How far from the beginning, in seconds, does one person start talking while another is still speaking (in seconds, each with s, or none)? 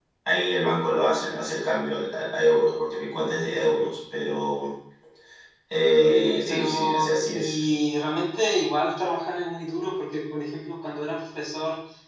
6.0 s